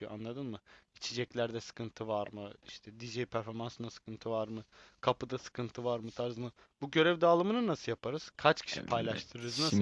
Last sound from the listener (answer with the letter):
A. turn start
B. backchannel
A